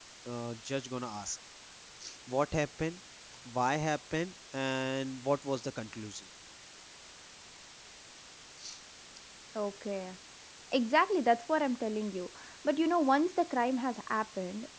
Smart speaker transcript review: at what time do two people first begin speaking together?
none

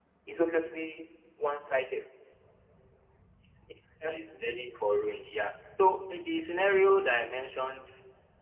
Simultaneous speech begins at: none

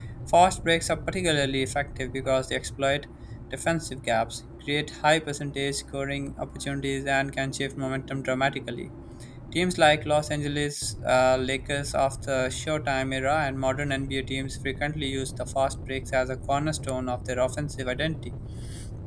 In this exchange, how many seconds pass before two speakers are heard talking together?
none

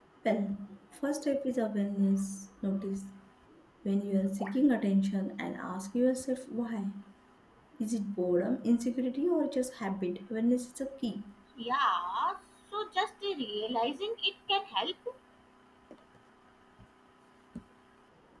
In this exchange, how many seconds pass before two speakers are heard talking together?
none

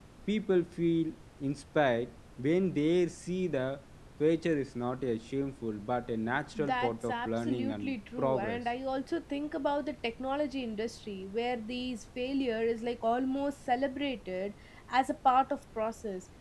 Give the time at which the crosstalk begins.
6.5 s

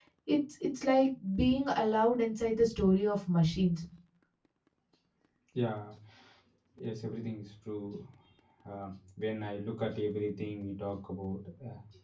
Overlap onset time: none

